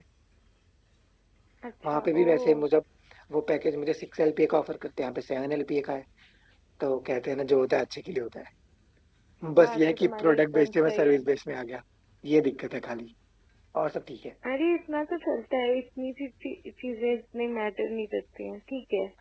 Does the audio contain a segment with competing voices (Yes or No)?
Yes